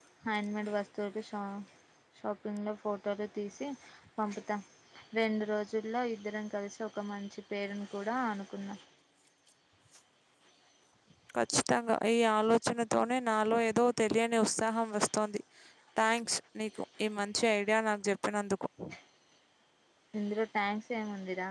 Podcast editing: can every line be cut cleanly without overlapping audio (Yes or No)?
Yes